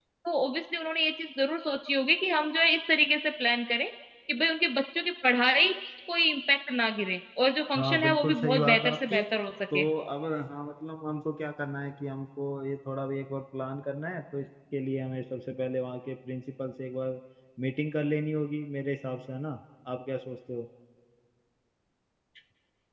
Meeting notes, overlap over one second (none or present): present